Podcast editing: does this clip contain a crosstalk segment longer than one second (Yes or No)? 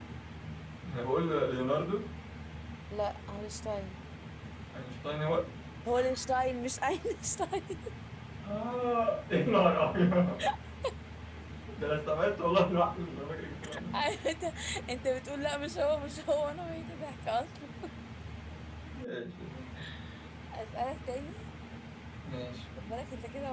No